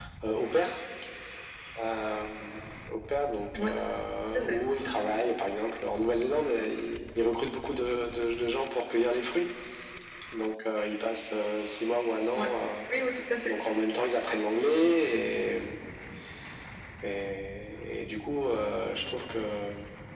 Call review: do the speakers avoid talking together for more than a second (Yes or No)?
Yes